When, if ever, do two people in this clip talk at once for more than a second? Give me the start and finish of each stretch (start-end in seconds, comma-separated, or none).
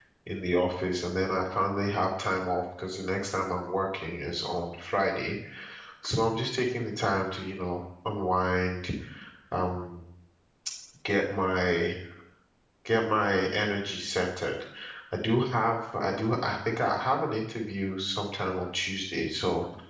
none